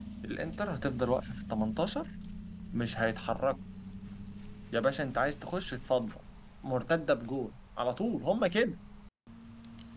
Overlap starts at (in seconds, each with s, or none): none